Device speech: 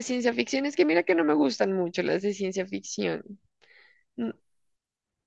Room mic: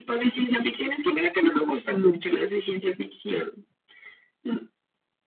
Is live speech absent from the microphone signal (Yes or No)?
Yes